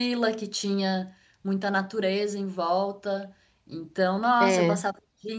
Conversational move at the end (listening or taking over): listening